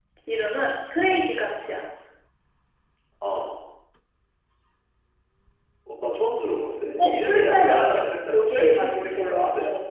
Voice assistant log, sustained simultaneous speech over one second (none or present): present